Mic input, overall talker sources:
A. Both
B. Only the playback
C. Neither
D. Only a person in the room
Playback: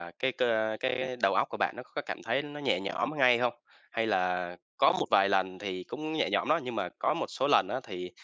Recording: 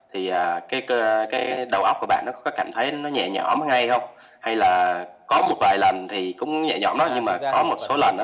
A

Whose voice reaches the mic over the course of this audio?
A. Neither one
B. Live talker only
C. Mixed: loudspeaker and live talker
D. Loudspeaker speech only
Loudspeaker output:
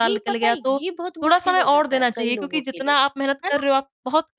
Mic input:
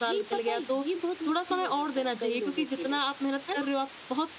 D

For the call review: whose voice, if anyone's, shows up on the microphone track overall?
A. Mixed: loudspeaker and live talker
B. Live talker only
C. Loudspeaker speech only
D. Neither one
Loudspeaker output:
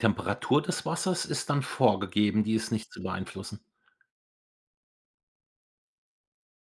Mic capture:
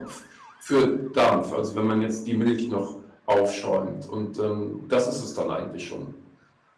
B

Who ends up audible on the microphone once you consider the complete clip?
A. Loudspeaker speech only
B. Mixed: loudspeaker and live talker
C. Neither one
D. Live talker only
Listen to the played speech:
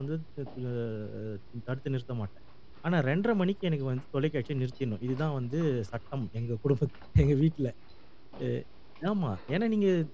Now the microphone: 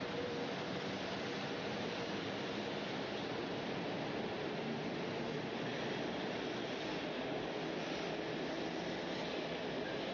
C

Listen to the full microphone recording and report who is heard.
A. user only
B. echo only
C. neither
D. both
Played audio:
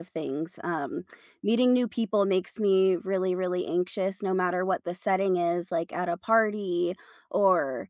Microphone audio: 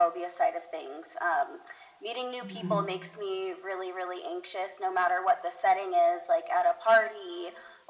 D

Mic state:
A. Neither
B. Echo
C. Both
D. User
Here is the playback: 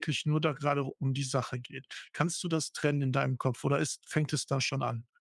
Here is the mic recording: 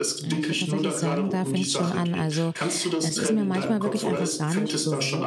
C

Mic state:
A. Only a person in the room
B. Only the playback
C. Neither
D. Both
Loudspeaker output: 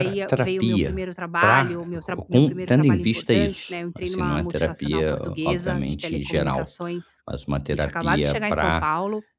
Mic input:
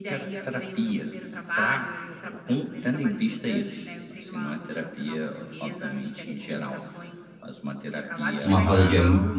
D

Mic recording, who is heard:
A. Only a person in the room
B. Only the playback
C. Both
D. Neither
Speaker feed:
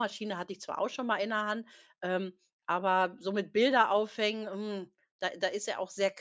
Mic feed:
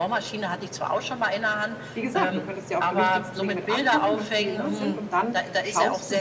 C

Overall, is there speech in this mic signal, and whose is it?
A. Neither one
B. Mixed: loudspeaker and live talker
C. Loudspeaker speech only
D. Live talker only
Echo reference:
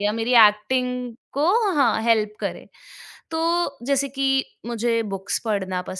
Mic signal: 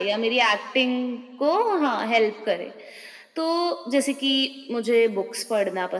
C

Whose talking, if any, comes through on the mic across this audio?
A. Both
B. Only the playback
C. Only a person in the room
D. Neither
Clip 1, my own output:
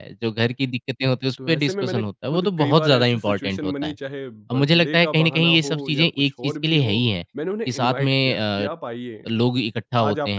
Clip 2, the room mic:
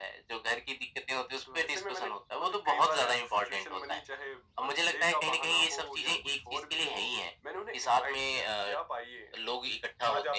B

